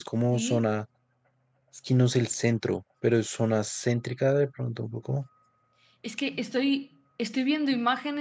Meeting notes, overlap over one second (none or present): none